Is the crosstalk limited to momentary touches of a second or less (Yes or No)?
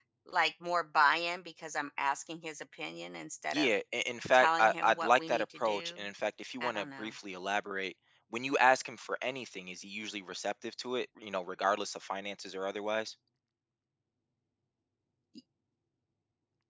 No